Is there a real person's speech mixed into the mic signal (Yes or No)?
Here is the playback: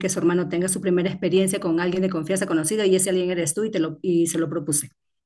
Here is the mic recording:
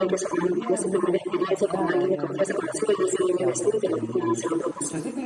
Yes